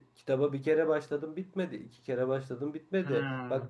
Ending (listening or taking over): listening